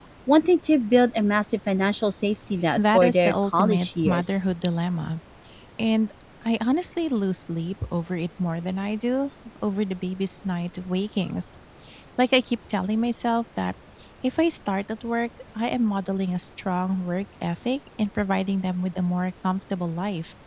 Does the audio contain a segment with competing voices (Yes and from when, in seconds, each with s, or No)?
Yes, from 2.8 s